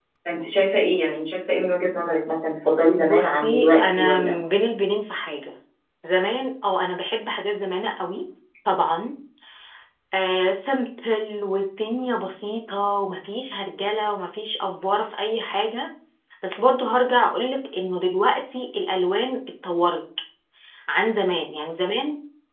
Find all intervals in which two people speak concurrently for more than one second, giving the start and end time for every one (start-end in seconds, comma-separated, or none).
3.0-4.4